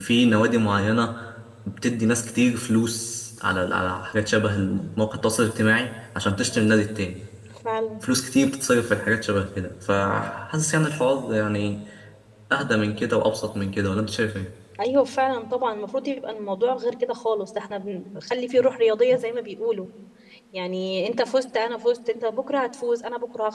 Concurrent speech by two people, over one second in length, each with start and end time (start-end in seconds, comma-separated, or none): none